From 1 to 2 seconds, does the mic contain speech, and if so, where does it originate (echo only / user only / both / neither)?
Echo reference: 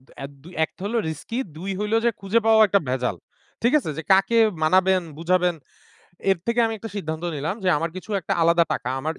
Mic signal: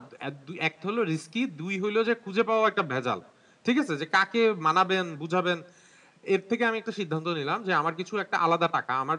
echo only